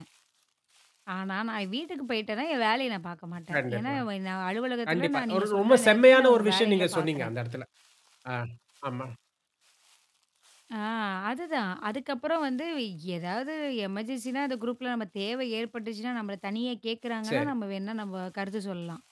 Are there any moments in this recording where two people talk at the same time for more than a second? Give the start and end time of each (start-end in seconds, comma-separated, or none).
4.9-7.3